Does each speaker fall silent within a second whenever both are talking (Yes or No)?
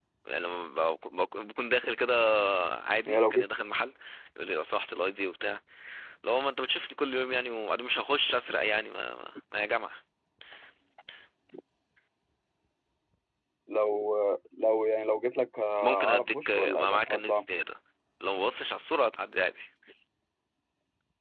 No